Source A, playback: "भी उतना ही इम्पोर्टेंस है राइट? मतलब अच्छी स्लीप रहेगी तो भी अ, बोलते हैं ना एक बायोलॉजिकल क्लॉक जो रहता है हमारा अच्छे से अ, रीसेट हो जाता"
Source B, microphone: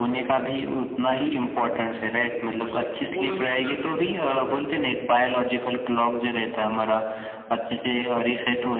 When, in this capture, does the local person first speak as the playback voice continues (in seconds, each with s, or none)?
2.0 s